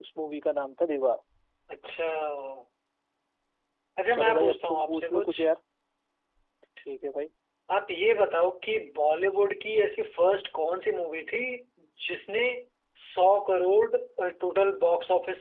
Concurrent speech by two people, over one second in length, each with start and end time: 4.1-5.3

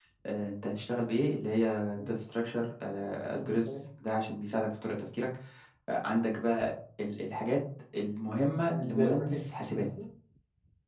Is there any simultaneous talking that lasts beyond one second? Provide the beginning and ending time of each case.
8.6-9.9

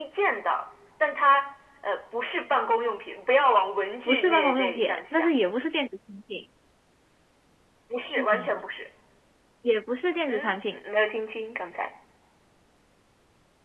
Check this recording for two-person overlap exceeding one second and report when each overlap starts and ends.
4.1-5.3

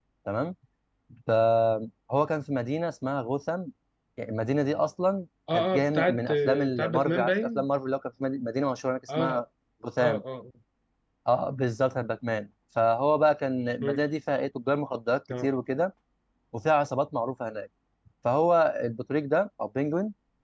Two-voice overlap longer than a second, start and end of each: 5.5-7.7

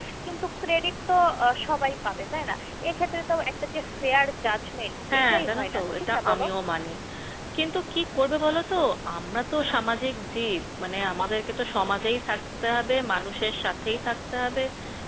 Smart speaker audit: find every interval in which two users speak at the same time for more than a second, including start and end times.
5.1-6.4

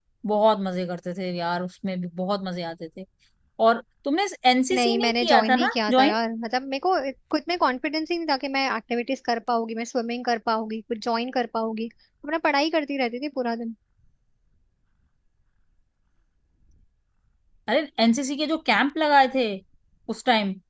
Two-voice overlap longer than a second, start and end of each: 4.7-6.2

